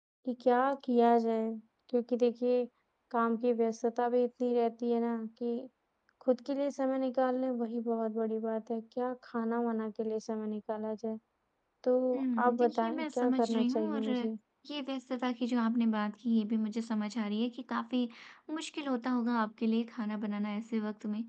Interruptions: present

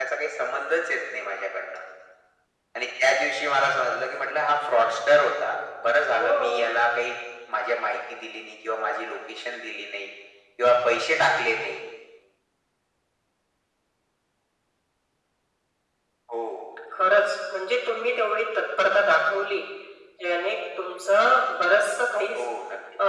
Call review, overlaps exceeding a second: none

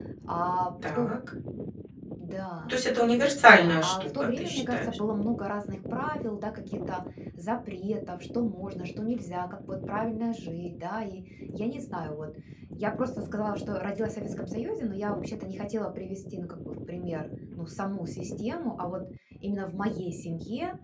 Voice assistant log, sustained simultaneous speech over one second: present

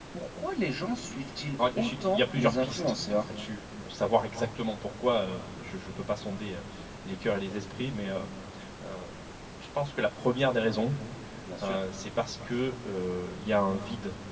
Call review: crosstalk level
present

